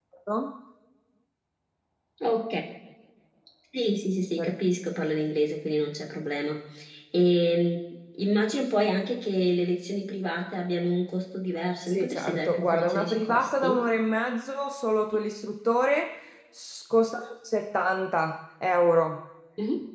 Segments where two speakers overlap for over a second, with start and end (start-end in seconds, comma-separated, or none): 11.9-13.8